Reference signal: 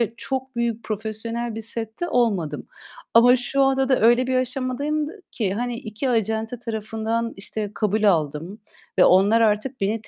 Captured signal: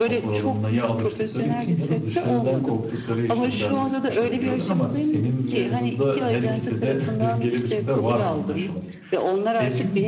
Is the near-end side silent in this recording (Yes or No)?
No